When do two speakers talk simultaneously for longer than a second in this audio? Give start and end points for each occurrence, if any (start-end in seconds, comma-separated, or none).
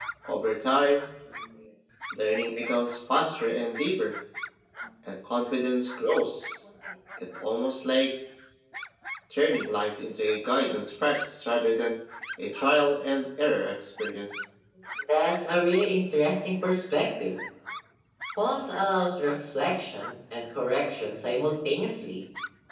none